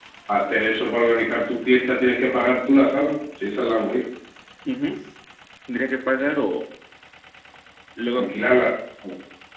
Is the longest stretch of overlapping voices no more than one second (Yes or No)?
Yes